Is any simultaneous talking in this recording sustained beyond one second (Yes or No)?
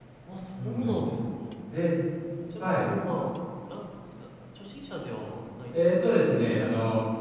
No